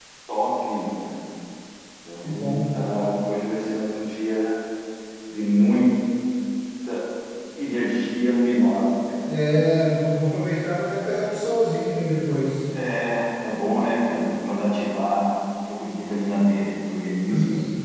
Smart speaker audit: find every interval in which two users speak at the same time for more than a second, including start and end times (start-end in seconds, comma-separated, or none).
none